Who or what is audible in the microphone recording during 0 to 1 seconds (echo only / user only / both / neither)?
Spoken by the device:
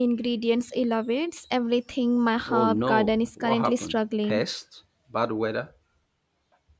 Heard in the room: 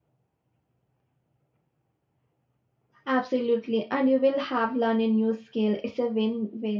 neither